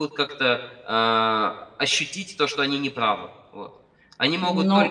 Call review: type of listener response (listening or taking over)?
taking over